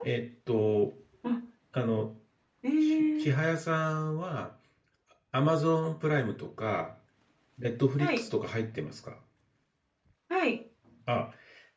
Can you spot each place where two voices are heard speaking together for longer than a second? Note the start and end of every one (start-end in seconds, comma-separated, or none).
none